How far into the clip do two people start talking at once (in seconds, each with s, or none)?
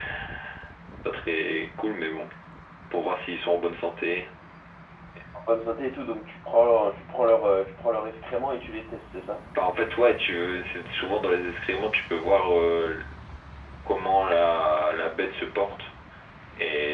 none